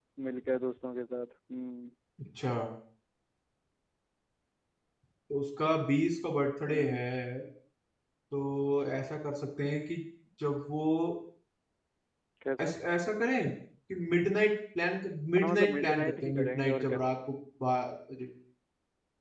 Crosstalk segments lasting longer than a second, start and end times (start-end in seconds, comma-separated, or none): 15.4-17.0